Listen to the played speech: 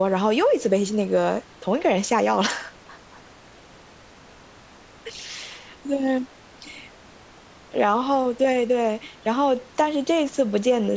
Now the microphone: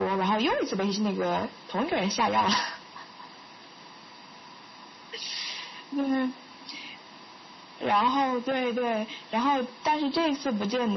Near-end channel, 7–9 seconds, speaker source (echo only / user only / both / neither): echo only